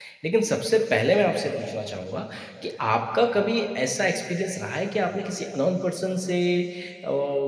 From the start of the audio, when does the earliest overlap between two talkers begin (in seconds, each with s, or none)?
none